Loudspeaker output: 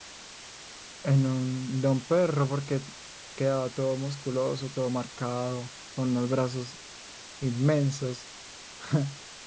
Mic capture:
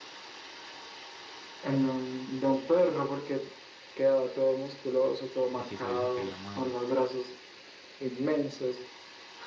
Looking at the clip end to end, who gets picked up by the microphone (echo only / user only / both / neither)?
both